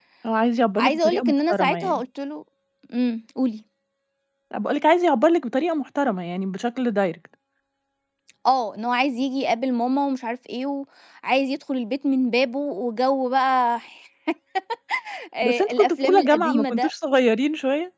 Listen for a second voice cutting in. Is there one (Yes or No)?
Yes